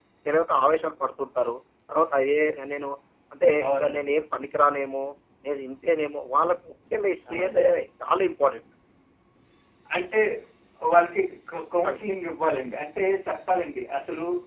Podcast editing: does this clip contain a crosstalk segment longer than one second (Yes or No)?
No